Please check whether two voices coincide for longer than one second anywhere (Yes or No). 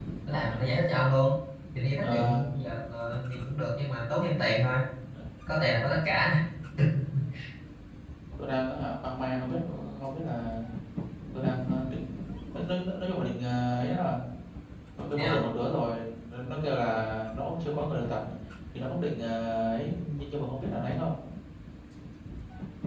No